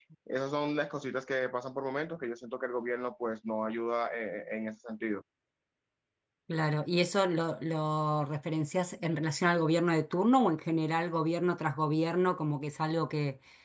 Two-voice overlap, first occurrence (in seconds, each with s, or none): none